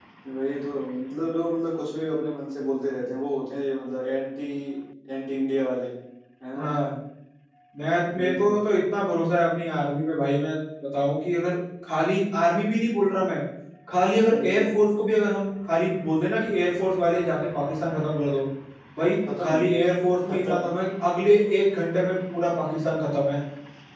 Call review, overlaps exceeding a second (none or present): none